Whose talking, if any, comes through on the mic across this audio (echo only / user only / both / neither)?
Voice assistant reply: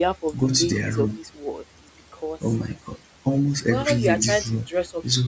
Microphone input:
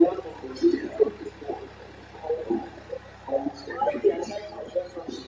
echo only